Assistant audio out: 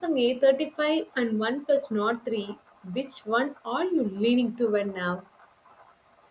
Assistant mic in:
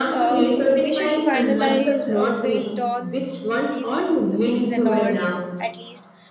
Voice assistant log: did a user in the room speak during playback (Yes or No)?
Yes